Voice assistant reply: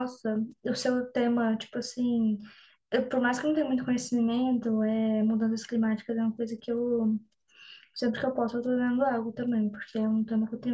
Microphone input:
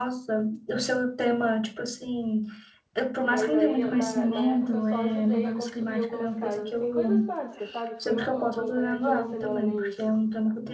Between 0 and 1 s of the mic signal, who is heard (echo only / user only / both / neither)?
echo only